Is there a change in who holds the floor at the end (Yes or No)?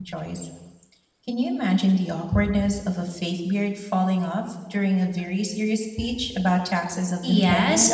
Yes